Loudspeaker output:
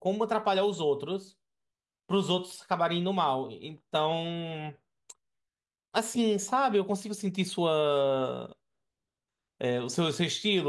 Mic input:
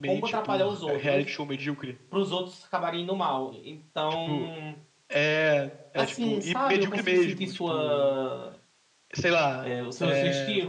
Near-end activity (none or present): present